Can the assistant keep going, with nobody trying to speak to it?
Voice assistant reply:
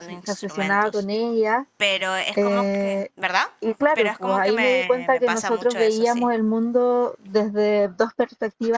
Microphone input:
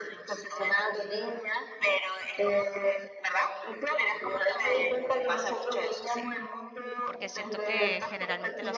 No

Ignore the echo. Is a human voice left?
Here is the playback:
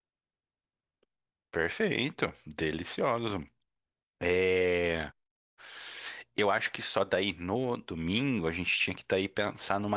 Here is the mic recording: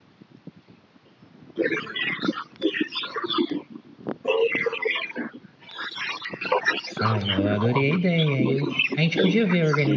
Yes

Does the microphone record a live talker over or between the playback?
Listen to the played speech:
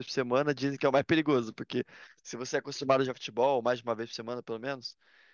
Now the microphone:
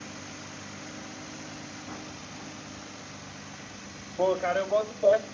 Yes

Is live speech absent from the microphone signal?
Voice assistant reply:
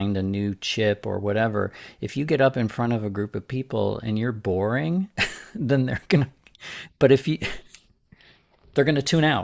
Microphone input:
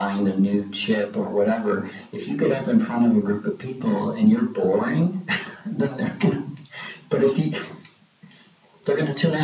Yes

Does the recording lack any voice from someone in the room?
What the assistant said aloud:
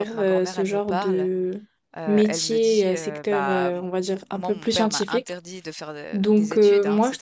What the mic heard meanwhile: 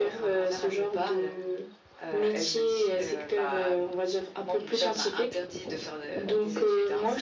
Yes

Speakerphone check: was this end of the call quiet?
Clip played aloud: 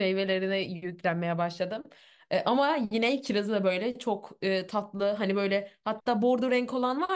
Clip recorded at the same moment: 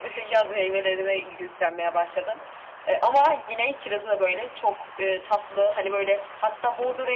Yes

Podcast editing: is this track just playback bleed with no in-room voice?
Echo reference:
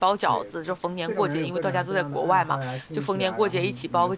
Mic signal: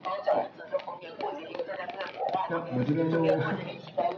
No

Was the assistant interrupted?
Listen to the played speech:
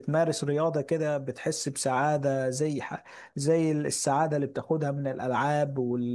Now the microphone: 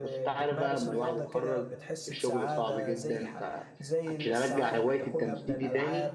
Yes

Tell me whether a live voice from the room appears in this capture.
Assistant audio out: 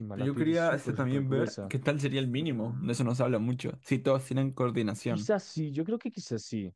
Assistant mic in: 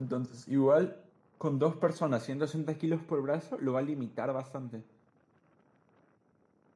Yes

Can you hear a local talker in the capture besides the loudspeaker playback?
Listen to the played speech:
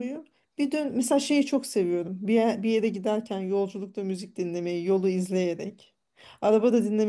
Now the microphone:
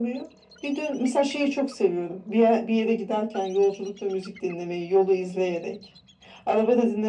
No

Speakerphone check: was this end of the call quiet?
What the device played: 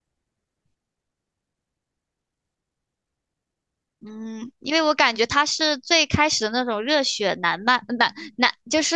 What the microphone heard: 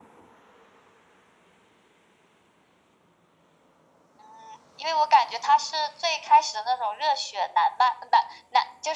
Yes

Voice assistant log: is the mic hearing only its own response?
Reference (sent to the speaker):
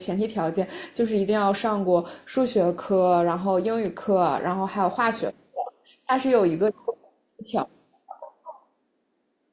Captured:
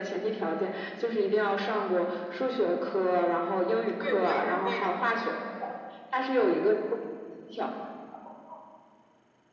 No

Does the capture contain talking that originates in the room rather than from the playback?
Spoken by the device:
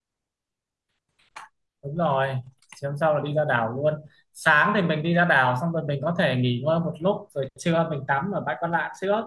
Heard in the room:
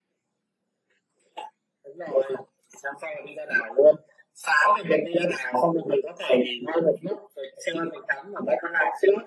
No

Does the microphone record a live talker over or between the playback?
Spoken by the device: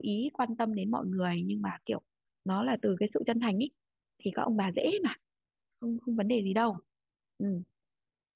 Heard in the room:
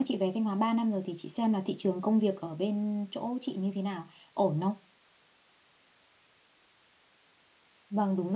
Yes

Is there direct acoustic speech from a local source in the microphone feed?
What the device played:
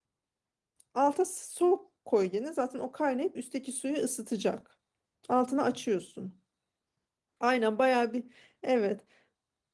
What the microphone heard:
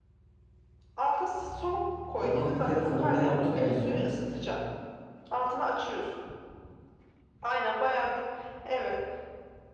Yes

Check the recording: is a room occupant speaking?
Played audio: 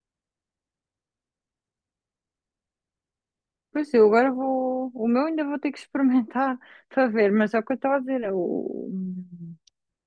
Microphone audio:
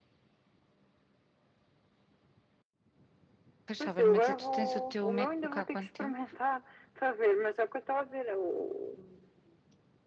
Yes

